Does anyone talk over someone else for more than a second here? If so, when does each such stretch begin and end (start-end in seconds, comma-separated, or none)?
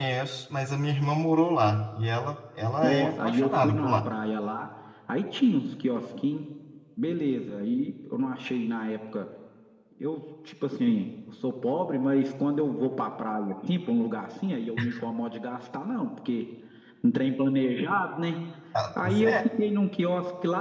2.8-4.2